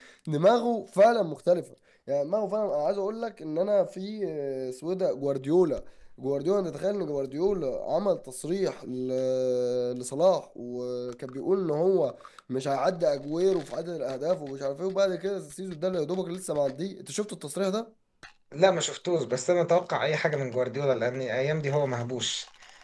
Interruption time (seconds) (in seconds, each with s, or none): none